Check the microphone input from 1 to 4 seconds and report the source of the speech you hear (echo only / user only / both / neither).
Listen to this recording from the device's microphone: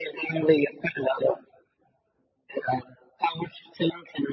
echo only